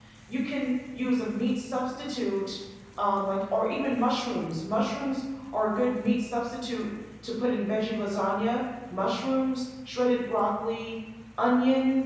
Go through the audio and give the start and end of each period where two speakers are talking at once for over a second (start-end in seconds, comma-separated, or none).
none